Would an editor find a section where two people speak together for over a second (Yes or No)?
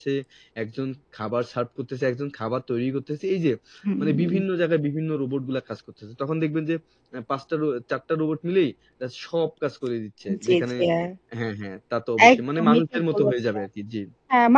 Yes